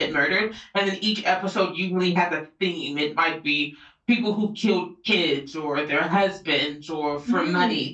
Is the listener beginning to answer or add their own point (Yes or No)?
No